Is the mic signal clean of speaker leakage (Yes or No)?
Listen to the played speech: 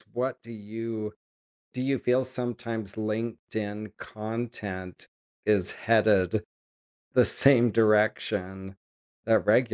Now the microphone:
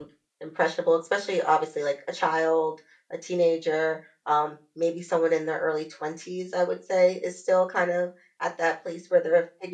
Yes